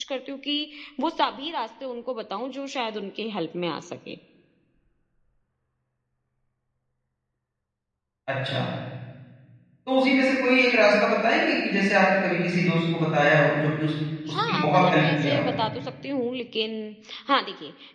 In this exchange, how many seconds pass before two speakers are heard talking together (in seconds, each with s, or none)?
14.2 s